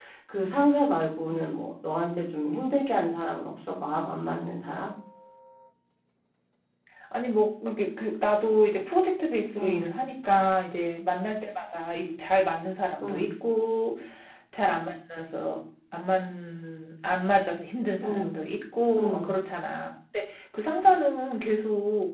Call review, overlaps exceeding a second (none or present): none